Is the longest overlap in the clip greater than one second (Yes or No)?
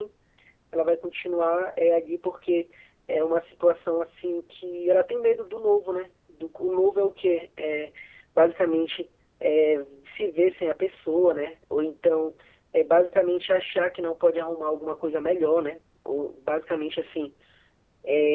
No